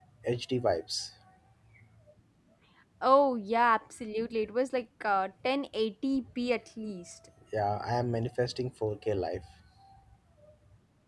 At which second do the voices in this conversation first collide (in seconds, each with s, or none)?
none